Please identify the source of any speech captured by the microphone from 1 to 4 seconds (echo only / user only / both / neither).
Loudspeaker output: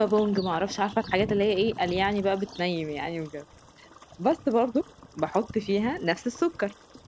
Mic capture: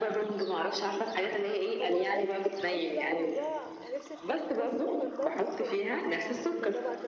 both